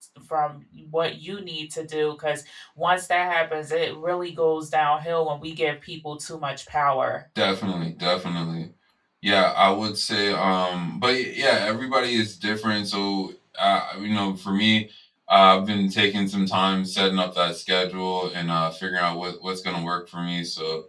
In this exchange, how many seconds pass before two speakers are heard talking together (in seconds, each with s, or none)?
none